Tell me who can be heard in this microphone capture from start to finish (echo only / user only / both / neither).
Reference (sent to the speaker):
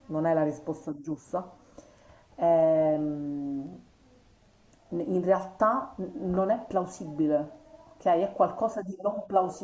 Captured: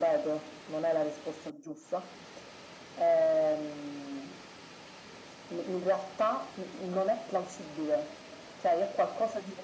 echo only